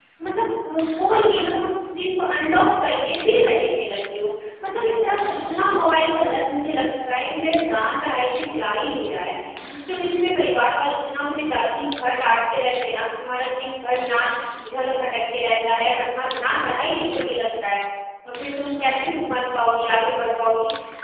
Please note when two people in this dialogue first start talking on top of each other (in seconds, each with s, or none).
none